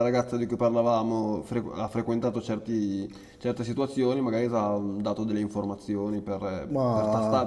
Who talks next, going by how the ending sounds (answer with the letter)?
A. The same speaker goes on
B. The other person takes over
A